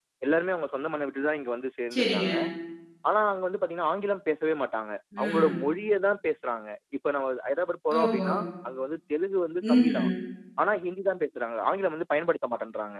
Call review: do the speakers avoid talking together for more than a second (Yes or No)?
Yes